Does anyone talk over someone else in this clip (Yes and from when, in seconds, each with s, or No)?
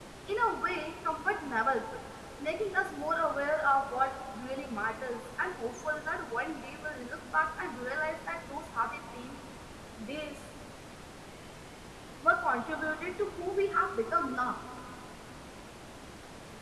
No